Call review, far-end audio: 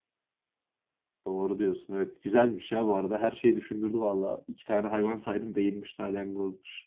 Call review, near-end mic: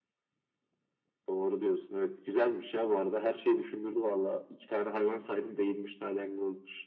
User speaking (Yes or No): No